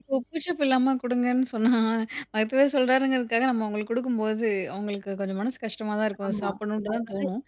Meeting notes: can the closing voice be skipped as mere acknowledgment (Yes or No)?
No